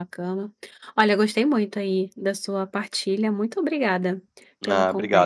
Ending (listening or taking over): taking over